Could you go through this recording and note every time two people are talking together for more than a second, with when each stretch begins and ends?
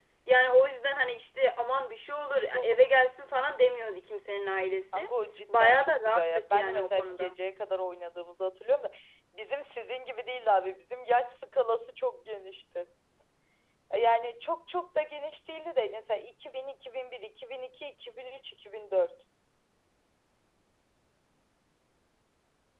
5.5-7.3

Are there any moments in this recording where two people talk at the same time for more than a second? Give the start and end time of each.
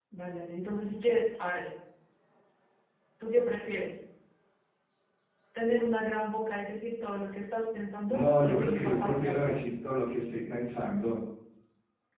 8.1-9.6

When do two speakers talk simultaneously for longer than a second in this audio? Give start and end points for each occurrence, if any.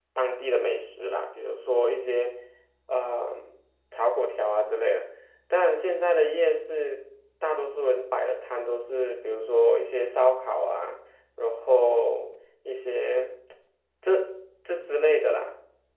none

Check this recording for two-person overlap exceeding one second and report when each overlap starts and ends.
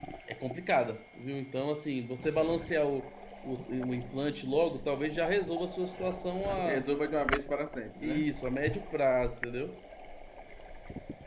none

